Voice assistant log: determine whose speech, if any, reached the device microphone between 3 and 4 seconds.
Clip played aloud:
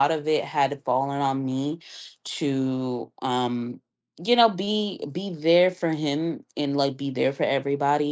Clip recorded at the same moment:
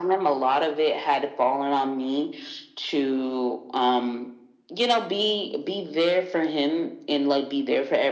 echo only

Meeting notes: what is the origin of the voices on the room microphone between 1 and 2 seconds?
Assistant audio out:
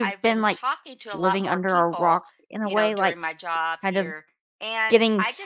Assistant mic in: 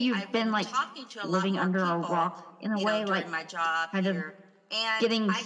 echo only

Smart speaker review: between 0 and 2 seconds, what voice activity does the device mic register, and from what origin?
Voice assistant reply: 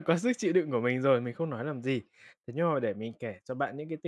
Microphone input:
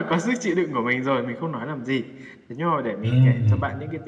echo only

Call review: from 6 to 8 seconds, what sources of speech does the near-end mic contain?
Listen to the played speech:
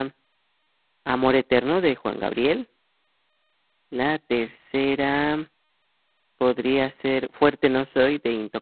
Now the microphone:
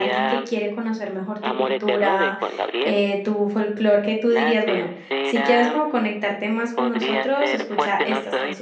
both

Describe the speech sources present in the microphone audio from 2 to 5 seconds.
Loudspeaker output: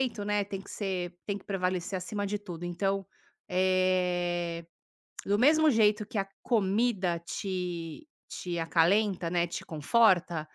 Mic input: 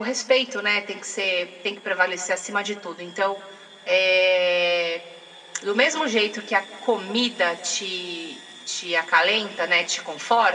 echo only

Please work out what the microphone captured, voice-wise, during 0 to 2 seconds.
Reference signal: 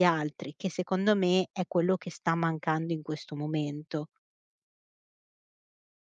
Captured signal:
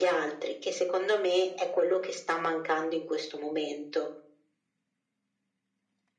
echo only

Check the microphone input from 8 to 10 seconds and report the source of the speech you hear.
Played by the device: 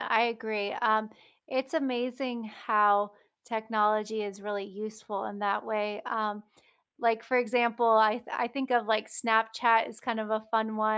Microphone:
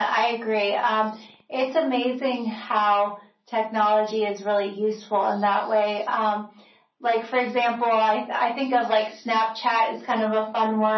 echo only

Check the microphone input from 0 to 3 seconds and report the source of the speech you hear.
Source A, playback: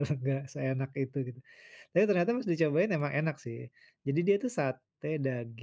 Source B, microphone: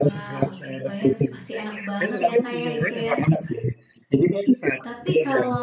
both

